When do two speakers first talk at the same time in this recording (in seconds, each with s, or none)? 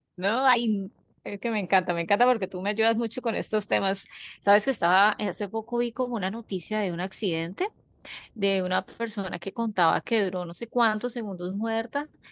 none